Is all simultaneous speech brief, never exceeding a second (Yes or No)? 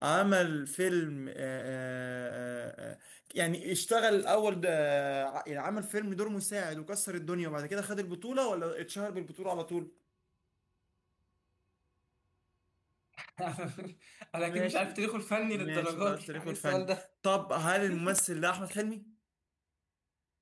No